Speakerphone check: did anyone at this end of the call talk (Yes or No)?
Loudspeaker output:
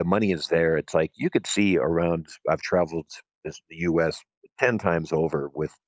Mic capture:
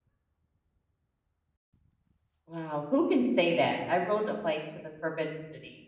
Yes